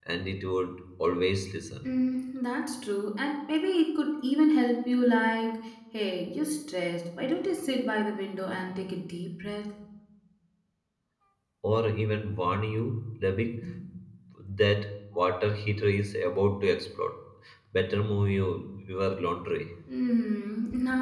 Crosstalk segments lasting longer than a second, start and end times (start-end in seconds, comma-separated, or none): none